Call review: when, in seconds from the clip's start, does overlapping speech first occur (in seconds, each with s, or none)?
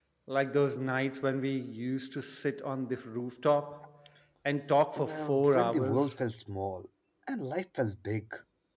5.0 s